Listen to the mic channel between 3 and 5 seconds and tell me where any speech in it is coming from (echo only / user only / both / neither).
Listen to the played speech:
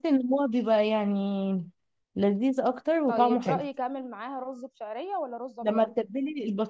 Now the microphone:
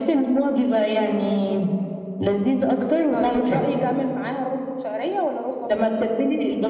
echo only